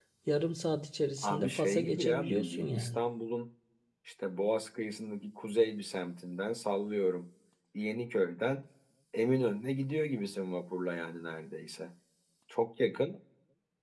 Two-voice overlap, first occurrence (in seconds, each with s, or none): 1.2 s